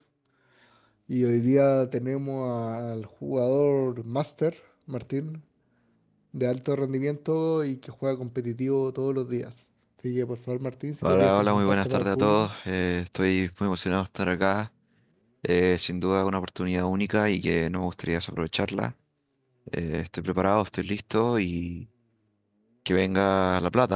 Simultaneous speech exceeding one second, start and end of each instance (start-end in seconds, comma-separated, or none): 11.0-12.5